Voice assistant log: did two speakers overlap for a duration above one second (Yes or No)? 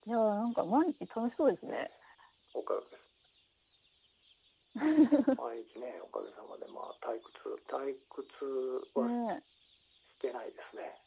No